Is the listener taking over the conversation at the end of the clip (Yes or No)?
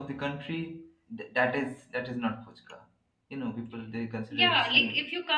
Yes